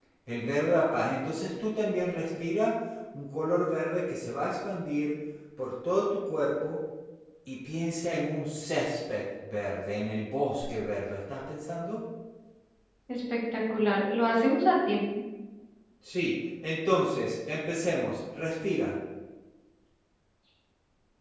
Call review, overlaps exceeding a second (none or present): none